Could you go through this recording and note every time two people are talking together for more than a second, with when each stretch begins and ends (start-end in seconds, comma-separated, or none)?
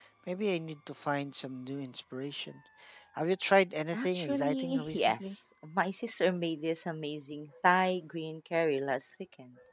3.9-5.4